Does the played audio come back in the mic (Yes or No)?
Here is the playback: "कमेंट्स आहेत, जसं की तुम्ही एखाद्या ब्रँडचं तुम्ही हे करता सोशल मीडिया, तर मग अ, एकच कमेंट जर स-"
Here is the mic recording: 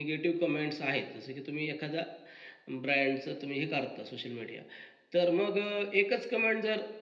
Yes